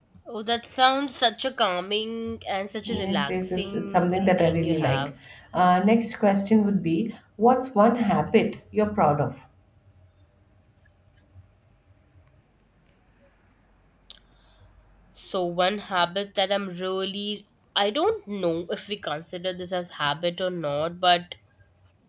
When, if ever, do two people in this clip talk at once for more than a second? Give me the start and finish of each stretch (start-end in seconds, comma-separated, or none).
3.0-5.1